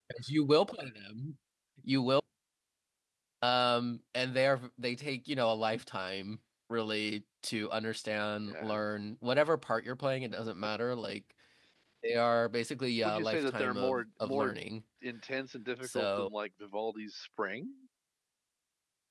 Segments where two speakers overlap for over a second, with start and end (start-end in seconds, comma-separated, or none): 13.0-14.5